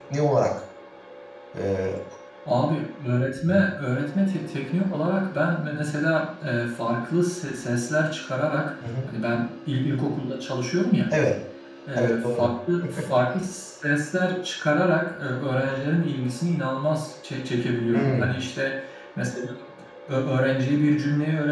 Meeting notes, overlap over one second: none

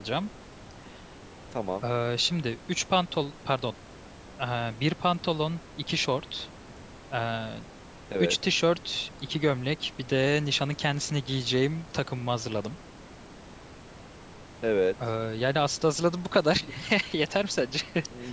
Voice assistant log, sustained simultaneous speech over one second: none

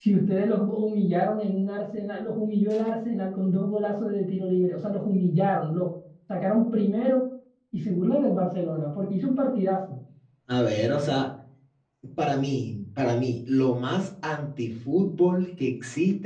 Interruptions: none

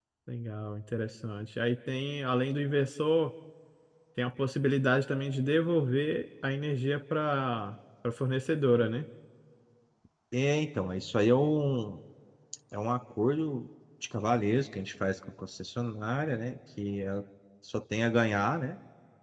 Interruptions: none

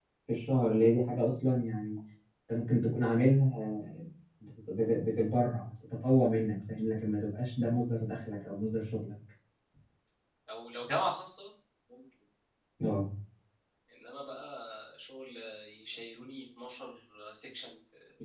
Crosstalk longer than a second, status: none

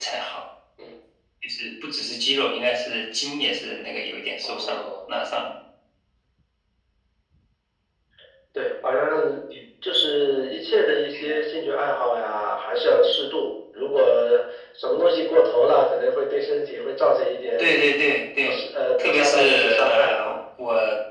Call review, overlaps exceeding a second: present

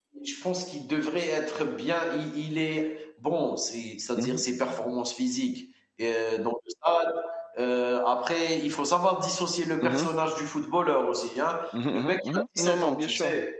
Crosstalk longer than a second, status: present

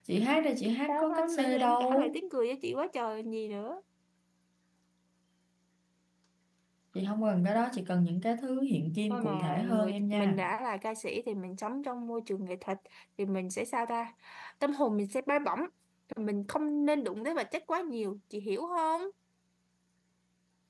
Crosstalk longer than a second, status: present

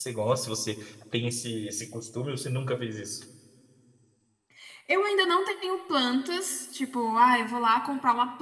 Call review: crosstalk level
none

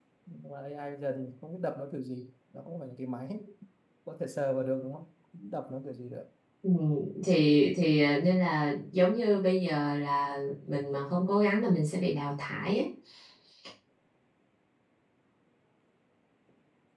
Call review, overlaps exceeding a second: none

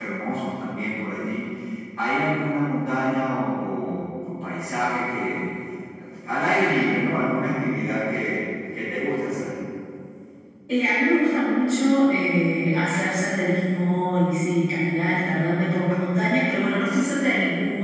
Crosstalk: none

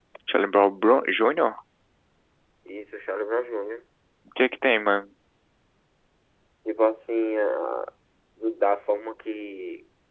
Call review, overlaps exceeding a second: none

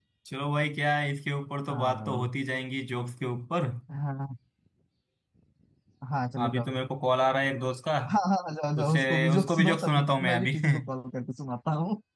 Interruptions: present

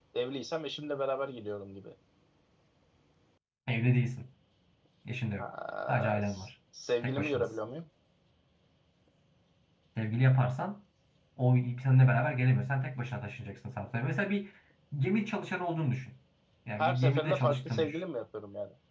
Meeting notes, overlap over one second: present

